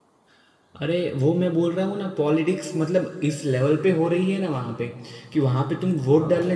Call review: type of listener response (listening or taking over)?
listening